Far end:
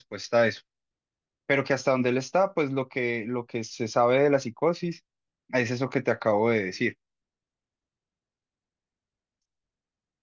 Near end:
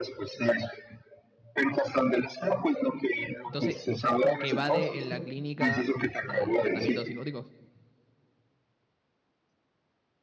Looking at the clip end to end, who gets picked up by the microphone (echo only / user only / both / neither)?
both